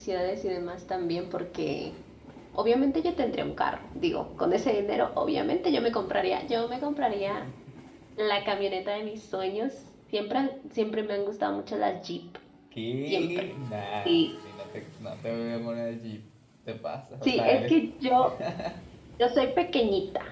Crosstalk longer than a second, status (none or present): none